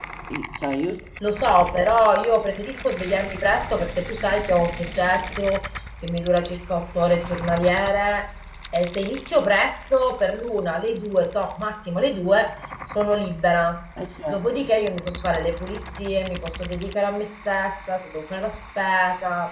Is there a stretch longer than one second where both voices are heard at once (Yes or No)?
No